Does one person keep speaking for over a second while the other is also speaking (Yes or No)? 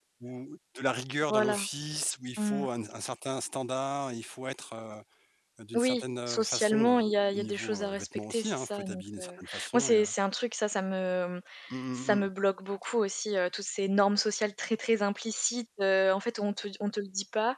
Yes